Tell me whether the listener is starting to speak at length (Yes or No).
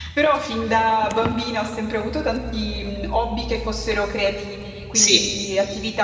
No